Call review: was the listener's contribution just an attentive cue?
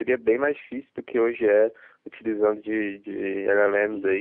No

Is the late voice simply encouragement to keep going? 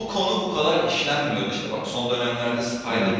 Yes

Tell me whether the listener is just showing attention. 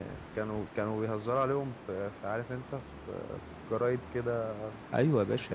No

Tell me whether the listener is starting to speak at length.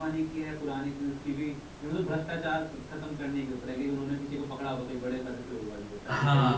Yes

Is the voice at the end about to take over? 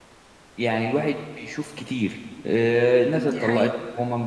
No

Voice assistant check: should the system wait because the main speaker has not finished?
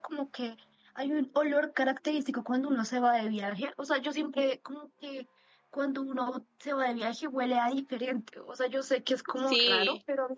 Yes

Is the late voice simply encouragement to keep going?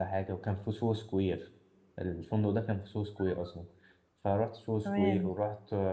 Yes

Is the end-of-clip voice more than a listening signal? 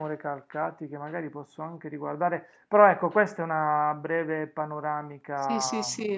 Yes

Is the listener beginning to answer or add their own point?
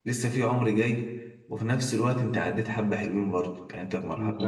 Yes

